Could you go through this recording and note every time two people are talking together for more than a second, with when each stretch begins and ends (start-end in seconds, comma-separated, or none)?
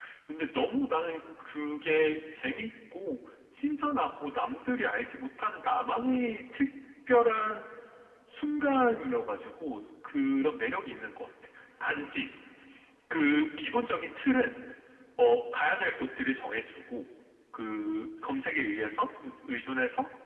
none